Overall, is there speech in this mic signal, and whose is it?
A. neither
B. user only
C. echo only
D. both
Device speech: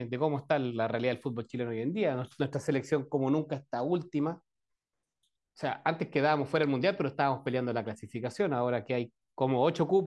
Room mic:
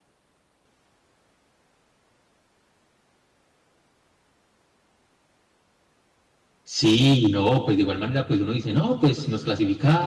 B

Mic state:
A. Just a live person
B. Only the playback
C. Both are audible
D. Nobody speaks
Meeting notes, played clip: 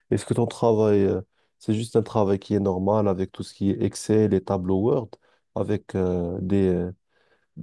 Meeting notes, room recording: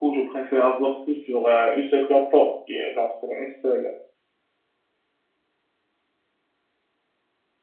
A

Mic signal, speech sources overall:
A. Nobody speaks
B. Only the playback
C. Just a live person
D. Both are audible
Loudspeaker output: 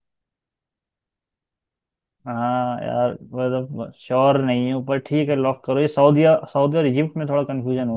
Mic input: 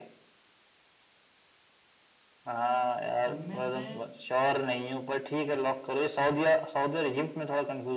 D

